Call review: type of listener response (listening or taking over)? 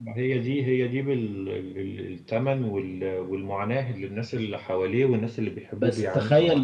taking over